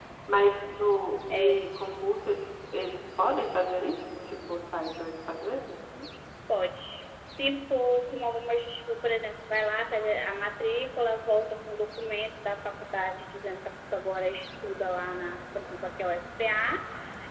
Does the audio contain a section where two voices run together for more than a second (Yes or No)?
No